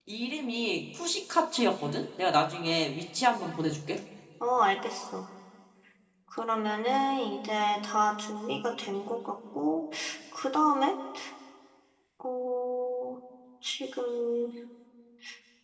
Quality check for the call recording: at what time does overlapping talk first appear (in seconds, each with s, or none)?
none